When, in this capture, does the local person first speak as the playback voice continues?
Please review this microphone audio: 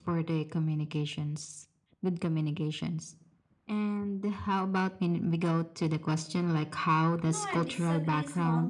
7.2 s

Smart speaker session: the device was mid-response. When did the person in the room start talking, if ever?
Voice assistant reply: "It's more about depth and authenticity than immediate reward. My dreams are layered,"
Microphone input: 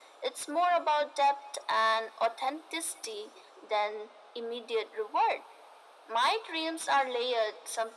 none

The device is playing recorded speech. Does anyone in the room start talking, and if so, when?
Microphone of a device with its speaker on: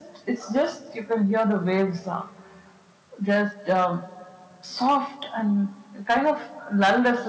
none

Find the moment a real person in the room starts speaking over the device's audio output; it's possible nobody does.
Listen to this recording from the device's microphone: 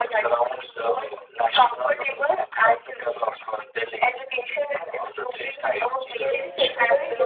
6.2 s

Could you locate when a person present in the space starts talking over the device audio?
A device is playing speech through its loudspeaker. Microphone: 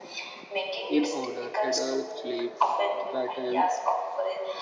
0.9 s

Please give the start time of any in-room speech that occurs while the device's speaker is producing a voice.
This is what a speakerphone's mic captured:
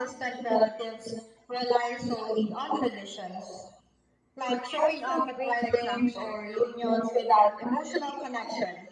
4.7 s

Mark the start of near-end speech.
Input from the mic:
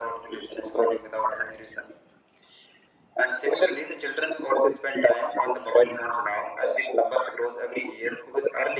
none

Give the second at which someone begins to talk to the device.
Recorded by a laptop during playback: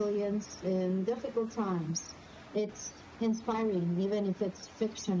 none

